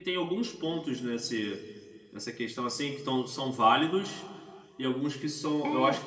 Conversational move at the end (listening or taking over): listening